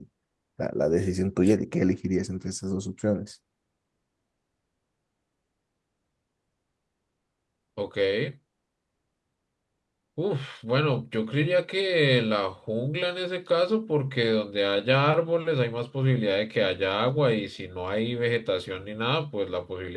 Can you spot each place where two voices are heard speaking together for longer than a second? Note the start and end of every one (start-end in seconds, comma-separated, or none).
none